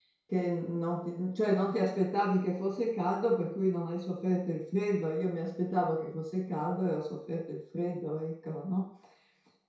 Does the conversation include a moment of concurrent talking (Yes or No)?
No